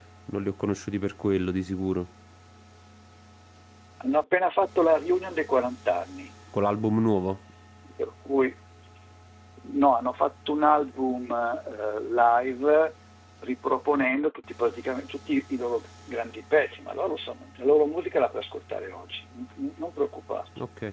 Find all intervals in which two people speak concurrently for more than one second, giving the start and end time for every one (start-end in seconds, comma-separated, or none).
none